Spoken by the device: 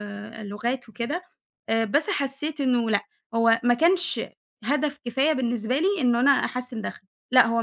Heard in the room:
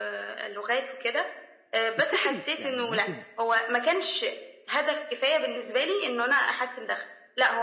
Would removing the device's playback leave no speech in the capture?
No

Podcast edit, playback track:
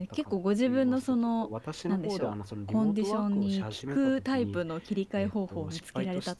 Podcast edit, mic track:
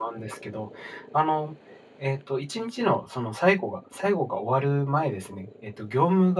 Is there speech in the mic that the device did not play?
Yes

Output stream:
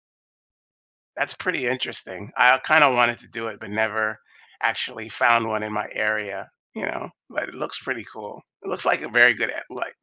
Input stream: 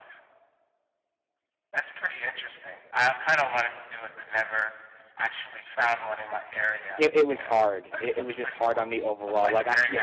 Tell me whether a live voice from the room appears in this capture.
Yes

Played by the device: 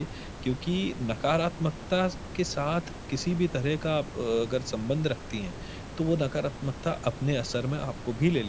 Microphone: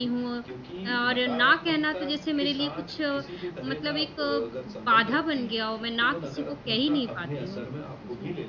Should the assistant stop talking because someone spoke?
Yes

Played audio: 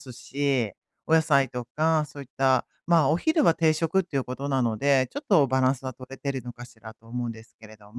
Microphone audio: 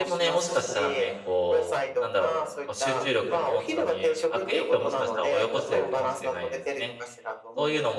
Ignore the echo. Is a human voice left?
Yes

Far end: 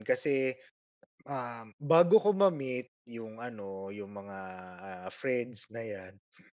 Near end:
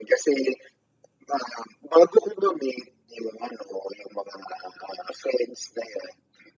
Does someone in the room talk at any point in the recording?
No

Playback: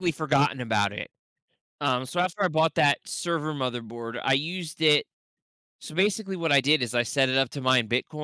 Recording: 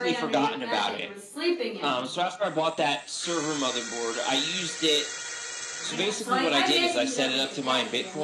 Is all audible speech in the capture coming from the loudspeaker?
No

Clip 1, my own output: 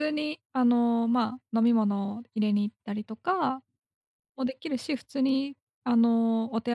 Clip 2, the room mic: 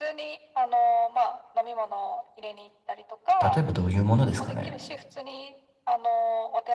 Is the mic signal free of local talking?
No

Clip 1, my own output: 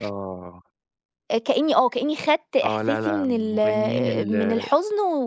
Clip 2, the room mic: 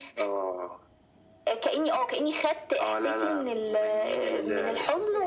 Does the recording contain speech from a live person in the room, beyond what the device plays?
Yes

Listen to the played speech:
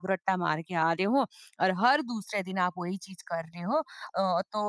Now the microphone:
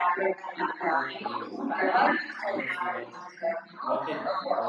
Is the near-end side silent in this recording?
No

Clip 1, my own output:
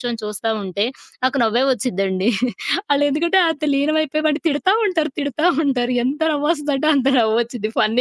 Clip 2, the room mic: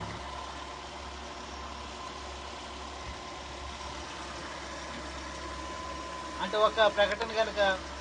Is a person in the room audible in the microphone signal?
Yes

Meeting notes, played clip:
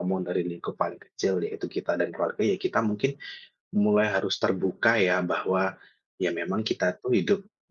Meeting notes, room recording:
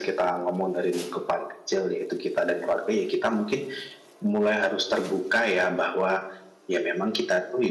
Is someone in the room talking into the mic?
No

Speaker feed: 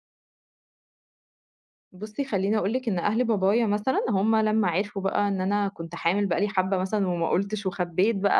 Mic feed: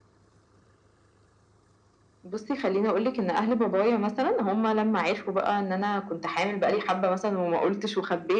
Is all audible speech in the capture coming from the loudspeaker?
Yes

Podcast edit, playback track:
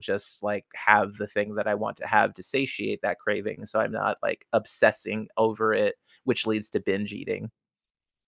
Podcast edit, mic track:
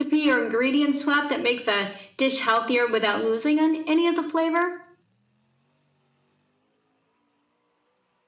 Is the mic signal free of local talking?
No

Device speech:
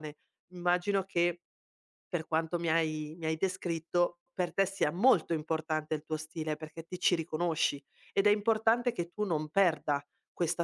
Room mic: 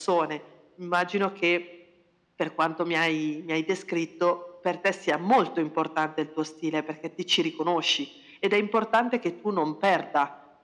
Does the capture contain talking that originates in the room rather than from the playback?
No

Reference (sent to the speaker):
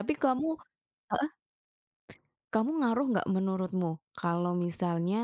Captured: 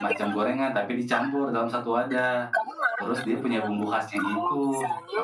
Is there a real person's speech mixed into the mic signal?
Yes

